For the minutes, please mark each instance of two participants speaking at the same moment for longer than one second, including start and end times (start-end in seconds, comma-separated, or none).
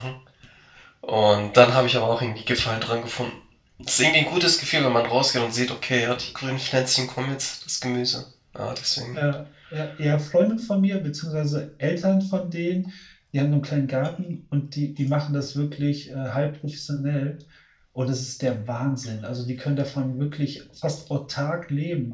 none